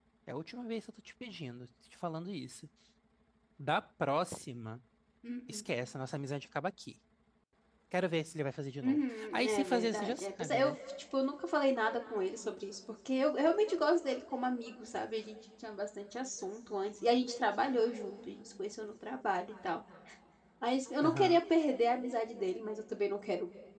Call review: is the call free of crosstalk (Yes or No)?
No